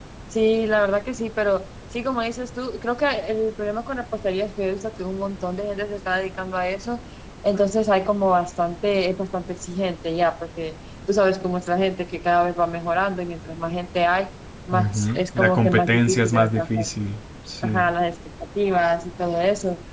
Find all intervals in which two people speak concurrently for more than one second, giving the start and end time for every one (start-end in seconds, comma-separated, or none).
14.7-16.9